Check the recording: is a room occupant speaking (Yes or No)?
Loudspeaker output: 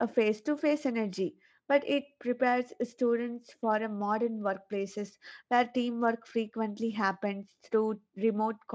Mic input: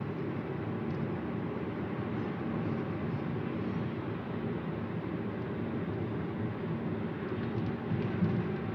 No